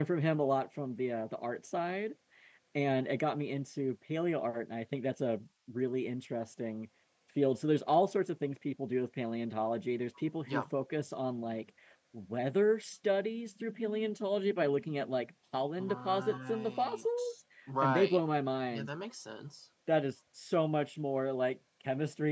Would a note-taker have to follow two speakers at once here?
Yes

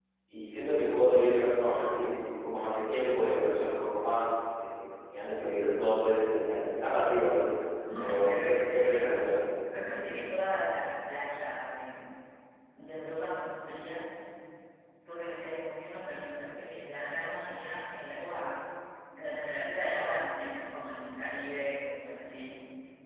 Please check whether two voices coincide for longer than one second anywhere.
Yes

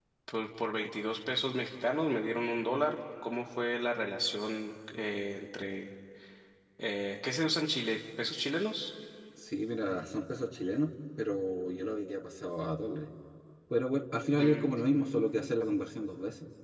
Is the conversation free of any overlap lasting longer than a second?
Yes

